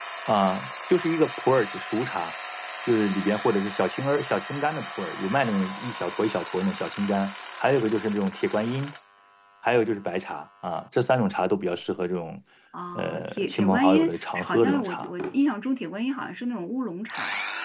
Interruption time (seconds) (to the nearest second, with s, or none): 13 s